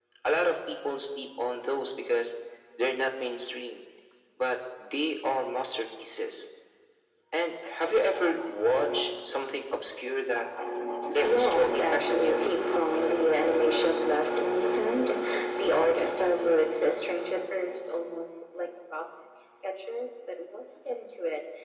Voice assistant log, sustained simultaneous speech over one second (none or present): present